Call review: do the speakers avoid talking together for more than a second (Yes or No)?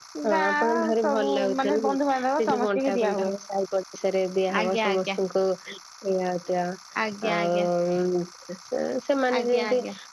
No